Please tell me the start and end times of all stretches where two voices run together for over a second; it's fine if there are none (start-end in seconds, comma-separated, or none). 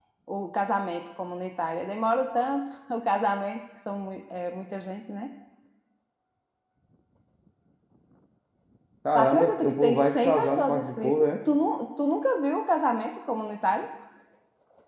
9.2-11.3